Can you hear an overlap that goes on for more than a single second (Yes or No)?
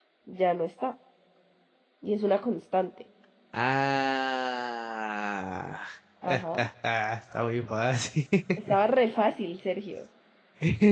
No